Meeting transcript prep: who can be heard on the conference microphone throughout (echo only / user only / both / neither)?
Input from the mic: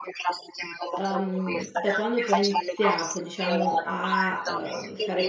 both